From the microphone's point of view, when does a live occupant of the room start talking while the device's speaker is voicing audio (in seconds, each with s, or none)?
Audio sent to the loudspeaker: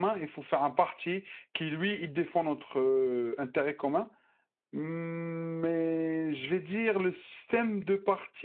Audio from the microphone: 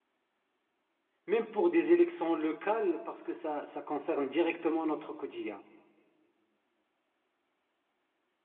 1.3 s